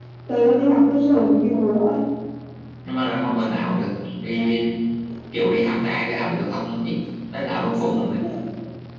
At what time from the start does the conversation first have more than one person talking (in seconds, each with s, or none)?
none